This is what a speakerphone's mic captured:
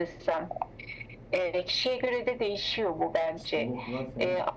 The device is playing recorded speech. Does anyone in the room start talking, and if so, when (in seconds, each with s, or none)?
3.4 s